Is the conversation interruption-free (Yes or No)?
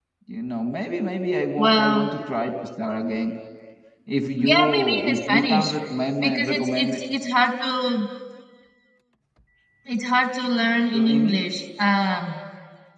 No